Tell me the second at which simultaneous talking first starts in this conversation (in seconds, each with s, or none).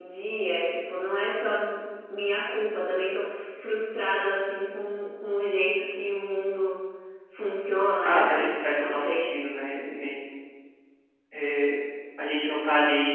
8.0 s